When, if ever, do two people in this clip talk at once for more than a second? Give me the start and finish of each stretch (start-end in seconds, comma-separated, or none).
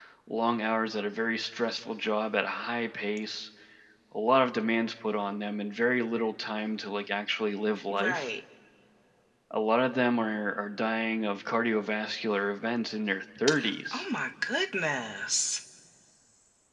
none